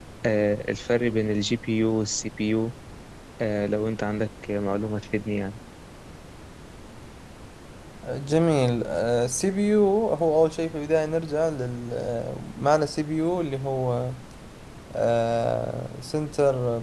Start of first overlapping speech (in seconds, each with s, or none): none